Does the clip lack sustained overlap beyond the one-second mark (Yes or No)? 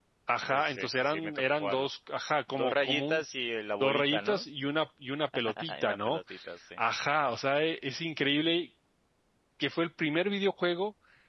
No